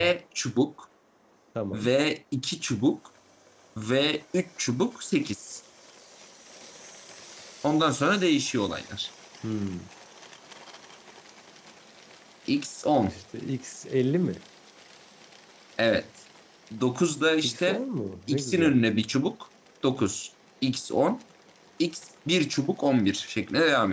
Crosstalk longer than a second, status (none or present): none